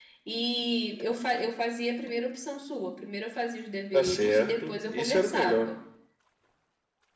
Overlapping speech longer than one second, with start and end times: 3.9-5.7

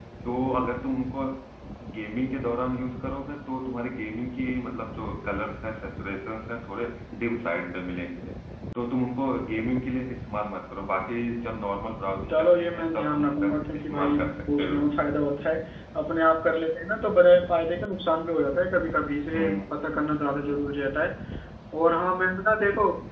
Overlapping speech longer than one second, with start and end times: 12.3-14.8

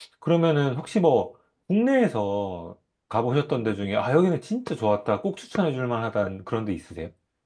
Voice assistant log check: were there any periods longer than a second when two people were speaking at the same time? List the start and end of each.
none

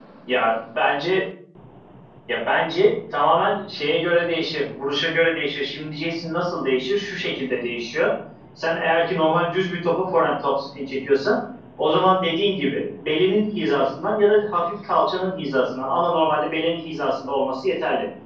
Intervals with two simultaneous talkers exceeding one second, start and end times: none

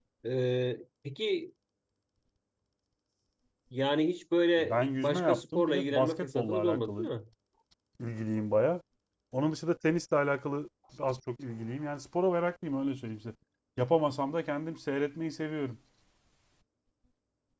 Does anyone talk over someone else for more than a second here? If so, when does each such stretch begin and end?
4.6-7.1

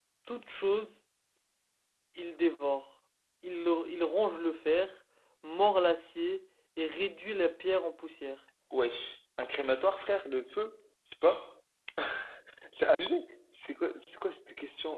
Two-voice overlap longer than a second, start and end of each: none

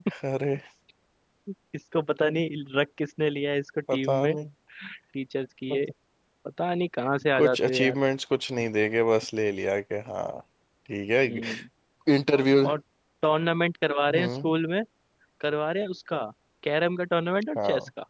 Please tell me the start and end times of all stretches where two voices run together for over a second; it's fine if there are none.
none

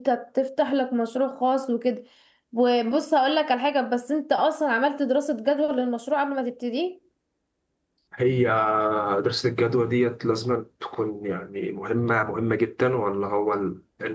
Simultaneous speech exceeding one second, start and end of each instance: none

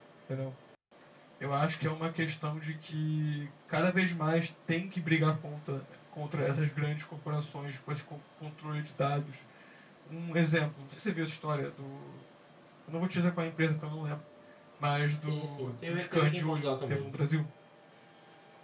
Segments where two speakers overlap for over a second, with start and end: 15.3-17.1

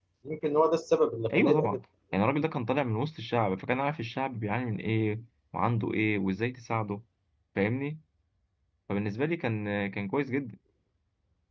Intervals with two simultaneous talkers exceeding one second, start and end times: none

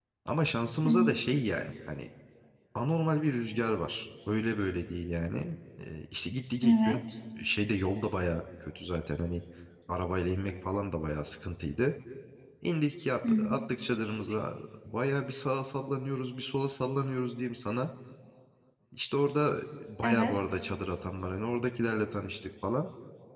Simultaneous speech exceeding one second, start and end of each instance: none

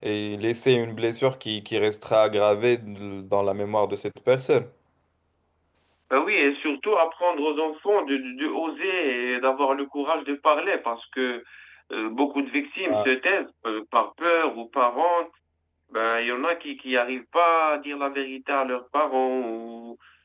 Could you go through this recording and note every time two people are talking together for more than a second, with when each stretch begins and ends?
none

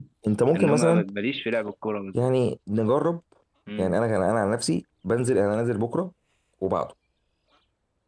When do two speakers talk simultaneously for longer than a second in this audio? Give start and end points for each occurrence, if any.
none

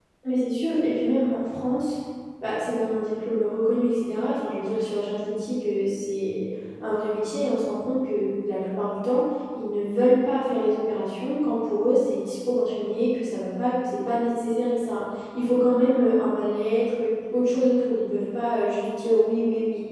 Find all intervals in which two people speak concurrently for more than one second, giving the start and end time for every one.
none

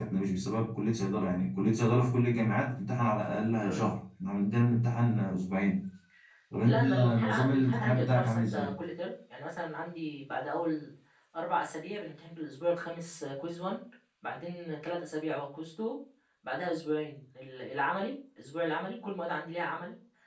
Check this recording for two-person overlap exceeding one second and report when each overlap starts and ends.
6.6-8.7

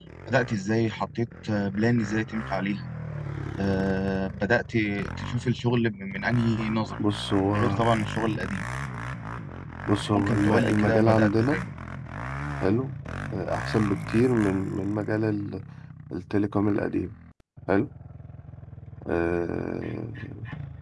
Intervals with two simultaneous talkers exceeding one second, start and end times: 10.1-11.6

